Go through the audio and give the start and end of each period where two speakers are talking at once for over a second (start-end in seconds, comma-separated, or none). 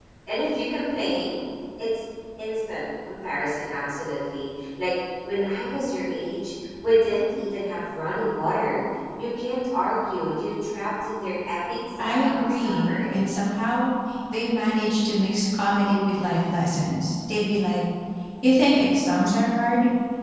12.0-13.3